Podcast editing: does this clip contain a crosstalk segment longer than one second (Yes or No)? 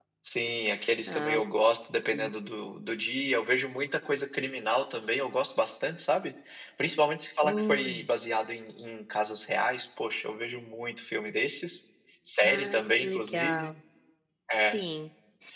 Yes